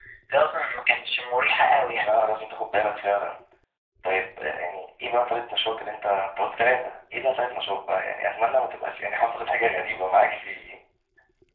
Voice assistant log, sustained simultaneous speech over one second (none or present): none